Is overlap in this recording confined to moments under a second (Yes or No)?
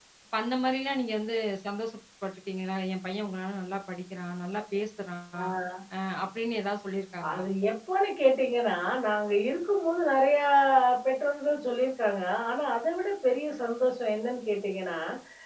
Yes